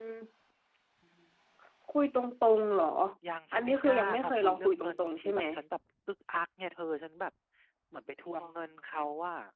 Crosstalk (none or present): present